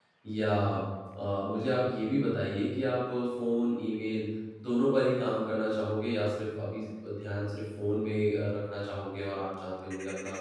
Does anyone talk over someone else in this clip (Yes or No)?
No